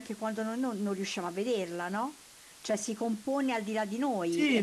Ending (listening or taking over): taking over